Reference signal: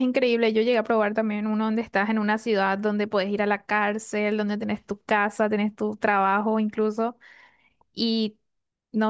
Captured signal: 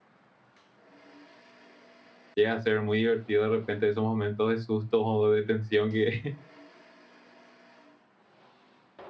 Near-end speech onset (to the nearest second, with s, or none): 2 s